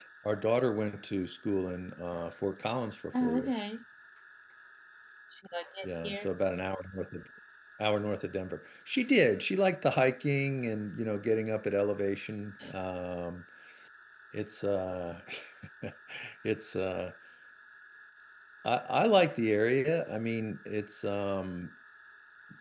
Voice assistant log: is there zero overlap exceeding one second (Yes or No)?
Yes